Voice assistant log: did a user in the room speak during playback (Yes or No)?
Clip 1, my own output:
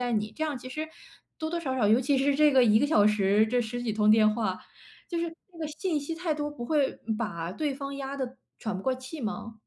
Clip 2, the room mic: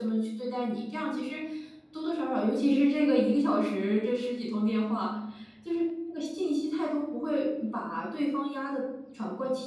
No